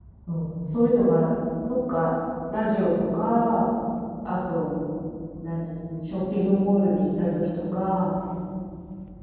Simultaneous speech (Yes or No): No